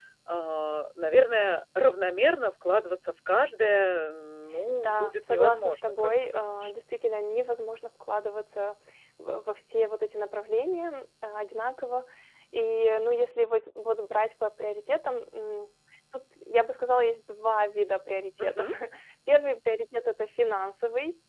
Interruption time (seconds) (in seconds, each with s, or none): 4.8 s